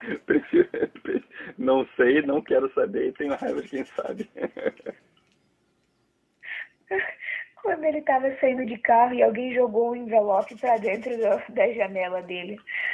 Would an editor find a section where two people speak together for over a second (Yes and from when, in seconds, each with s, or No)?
No